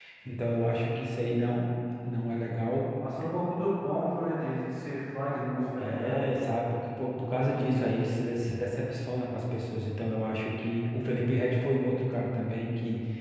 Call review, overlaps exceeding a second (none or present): none